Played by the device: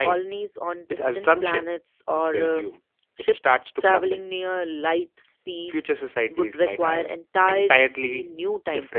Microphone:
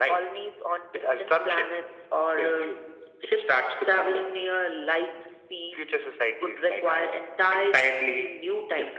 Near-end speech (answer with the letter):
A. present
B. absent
B